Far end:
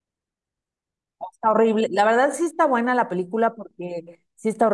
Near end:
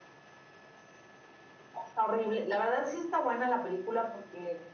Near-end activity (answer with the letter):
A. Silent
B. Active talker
A